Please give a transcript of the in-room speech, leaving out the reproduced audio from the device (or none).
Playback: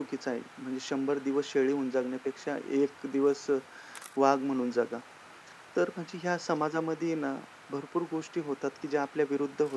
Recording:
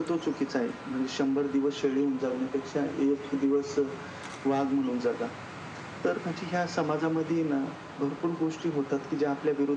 none